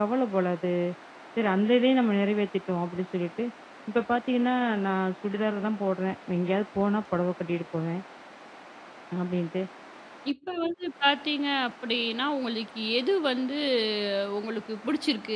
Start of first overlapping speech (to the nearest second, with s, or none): none